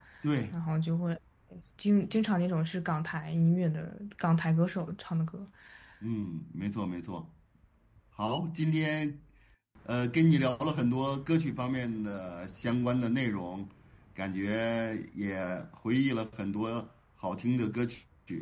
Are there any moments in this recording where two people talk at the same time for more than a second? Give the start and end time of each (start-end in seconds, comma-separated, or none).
none